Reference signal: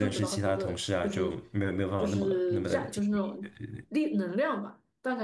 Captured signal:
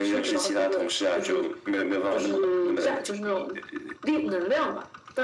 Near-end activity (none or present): none